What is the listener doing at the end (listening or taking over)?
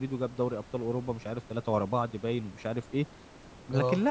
listening